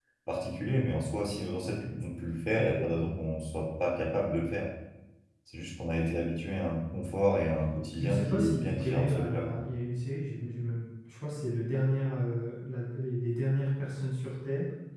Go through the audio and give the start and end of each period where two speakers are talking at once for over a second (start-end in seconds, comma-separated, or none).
8.0-9.7